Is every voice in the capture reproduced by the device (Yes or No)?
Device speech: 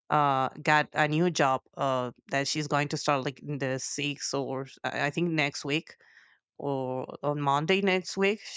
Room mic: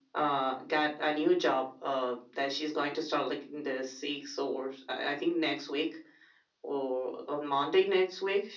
Yes